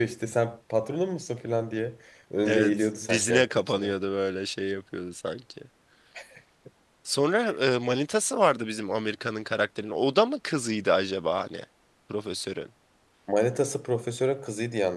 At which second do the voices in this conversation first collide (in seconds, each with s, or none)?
2.5 s